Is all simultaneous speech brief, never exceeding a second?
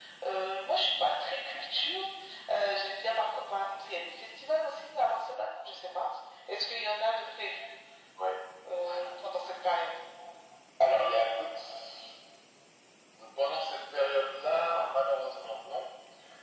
Yes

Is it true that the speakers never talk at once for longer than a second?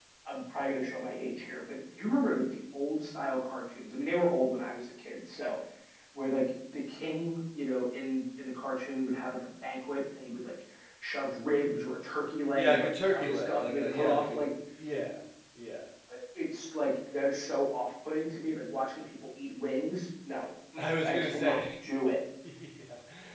No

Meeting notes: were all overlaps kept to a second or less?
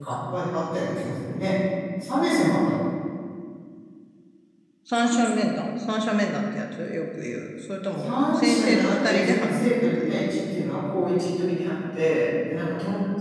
No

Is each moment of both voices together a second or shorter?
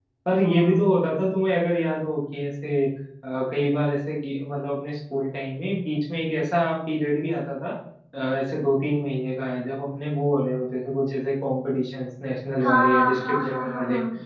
No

